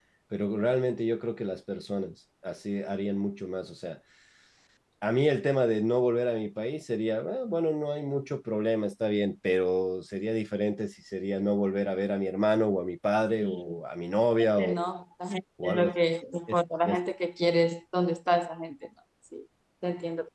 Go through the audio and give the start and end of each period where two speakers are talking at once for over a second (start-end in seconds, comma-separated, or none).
none